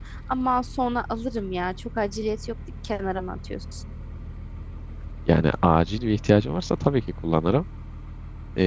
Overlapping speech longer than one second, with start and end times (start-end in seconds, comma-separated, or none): none